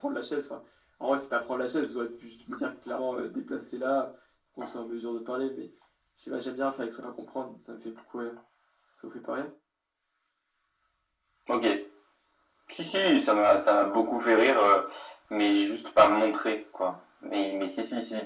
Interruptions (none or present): none